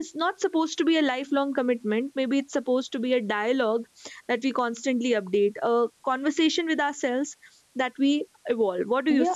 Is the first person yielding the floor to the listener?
Yes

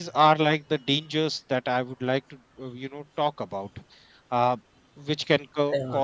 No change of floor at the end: Yes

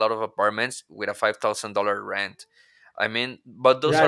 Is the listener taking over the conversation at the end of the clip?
Yes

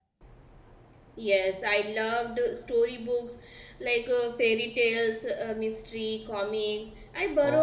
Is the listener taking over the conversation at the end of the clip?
No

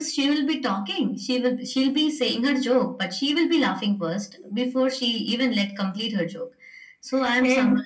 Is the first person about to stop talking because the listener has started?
No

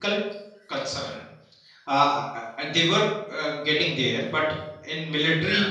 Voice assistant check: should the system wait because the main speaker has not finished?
Yes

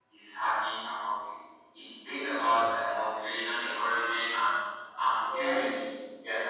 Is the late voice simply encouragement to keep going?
Yes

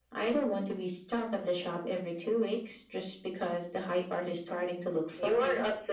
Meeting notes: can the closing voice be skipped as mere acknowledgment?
No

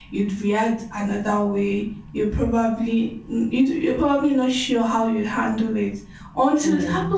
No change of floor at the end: Yes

